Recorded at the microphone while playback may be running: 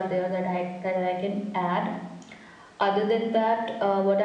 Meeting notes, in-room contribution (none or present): none